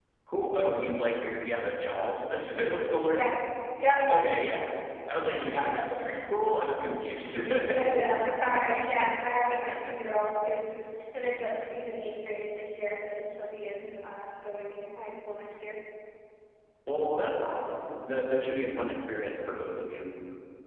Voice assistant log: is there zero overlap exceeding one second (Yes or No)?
No